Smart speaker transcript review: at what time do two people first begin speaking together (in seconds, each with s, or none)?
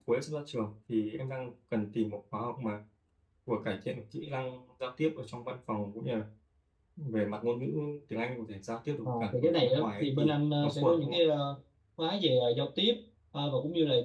9.0 s